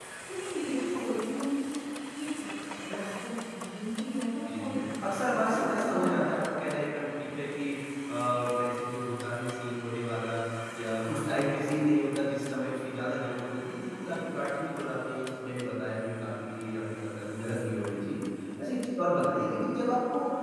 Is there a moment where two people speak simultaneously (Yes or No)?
Yes